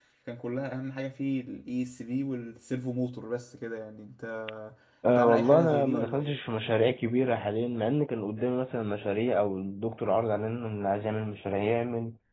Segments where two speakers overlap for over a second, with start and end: 5.1-6.4

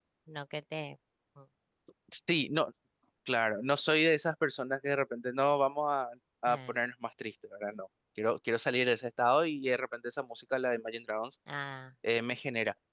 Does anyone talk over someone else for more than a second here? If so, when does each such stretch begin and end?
none

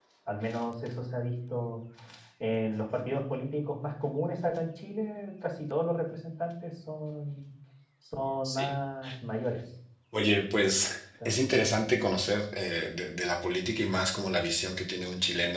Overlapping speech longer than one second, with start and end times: none

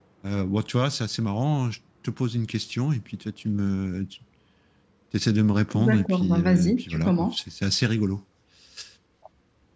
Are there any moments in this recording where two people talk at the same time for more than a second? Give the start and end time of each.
5.7-7.3

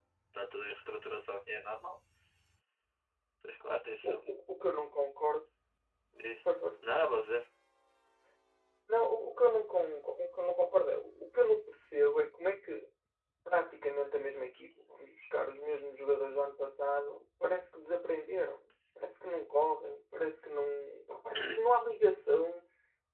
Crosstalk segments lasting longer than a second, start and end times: none

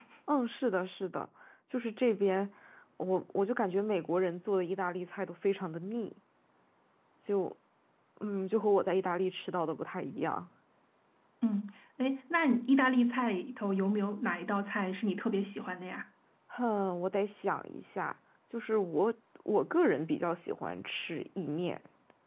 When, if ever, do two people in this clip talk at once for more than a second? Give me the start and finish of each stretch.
none

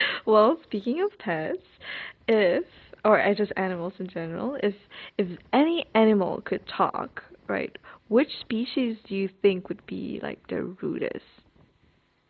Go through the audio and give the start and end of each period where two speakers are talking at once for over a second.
none

